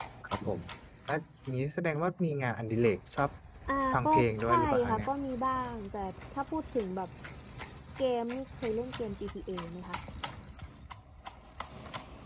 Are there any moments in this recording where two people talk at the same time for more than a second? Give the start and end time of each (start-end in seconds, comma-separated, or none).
3.9-5.1